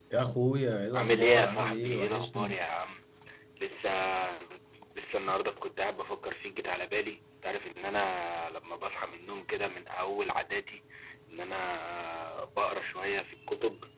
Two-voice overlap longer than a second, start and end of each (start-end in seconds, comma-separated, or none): 0.9-2.6